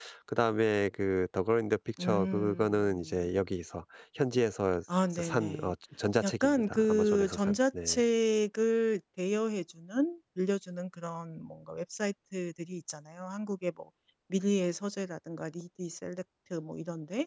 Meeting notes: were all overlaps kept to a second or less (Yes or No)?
No